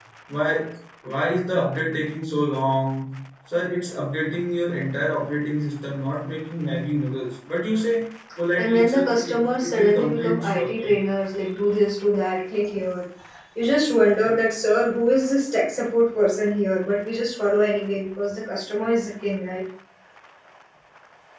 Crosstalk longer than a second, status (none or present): present